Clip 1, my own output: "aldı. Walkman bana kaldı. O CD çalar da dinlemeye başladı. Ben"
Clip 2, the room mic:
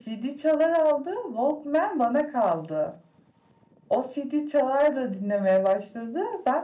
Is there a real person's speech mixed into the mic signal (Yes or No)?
No